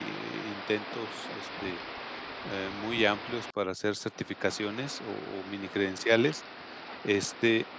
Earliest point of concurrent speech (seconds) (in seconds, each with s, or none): none